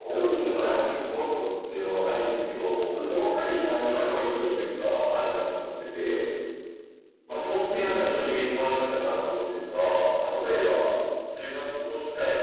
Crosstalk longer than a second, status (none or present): none